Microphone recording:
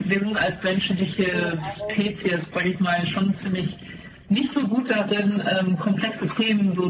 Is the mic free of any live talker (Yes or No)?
No